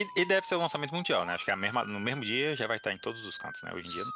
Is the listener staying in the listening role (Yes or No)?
No